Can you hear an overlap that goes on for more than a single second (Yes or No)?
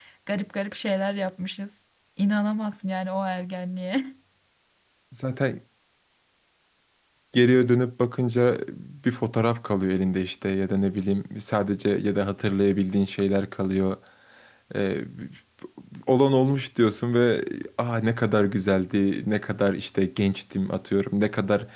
No